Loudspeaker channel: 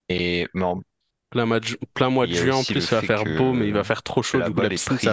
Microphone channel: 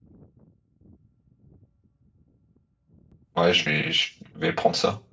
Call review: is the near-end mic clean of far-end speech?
Yes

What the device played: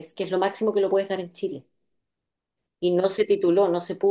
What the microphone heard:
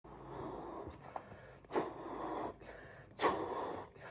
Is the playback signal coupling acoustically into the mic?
No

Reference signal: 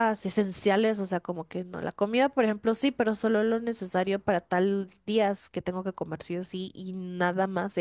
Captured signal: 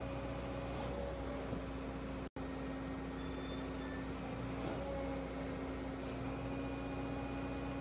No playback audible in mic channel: Yes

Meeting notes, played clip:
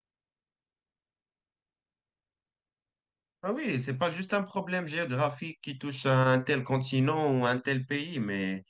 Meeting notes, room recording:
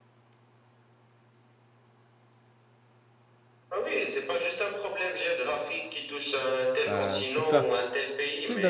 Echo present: Yes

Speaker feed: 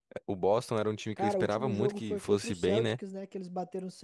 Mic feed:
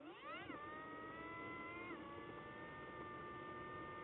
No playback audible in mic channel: Yes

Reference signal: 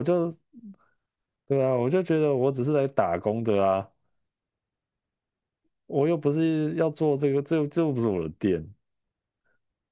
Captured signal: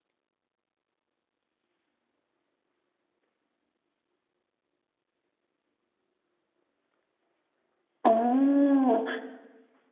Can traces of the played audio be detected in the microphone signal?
No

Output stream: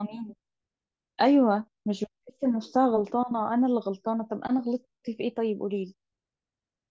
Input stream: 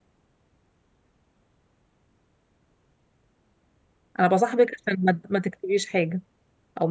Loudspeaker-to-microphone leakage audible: No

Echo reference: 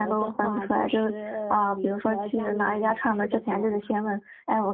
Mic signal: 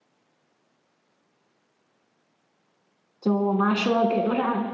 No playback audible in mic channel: Yes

